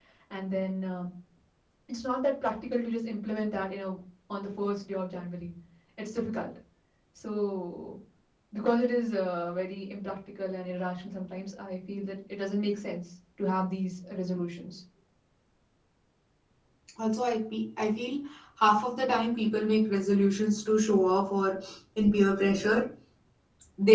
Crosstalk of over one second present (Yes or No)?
No